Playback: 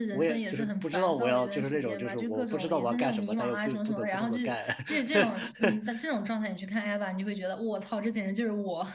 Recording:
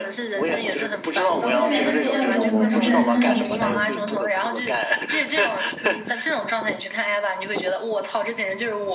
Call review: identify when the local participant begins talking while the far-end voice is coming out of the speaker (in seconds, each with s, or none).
1.5 s